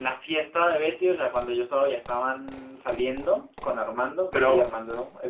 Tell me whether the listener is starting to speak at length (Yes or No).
No